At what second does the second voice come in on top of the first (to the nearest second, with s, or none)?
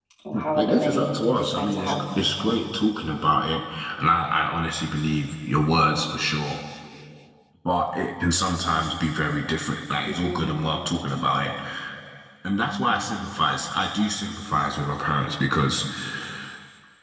1 s